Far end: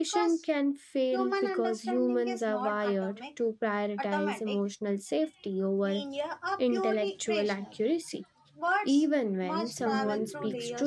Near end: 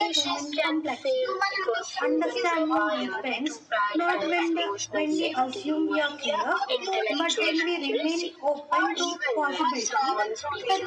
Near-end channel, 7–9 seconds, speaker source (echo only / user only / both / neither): both